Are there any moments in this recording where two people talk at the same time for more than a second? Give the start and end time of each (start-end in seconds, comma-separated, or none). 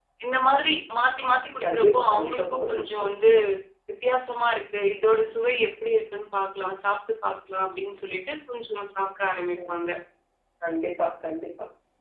1.6-3.1